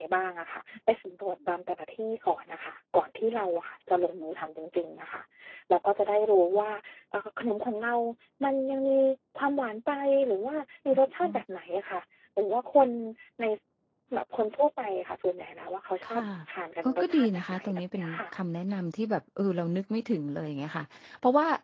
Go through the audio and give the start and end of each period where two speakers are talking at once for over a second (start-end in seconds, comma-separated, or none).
16.8-18.2